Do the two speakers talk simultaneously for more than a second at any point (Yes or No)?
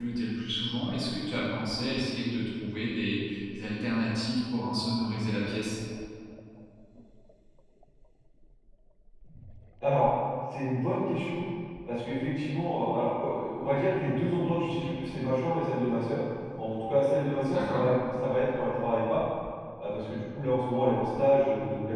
No